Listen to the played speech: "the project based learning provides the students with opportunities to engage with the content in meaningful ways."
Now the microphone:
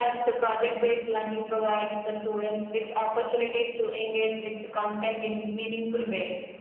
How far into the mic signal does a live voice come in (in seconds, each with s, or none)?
none